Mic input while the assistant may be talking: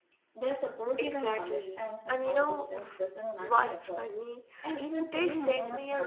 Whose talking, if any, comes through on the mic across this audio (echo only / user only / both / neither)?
both